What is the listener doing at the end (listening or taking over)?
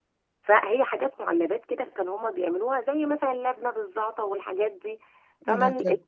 listening